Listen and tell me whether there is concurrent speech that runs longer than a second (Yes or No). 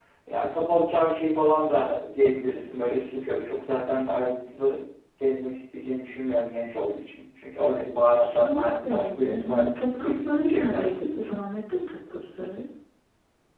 Yes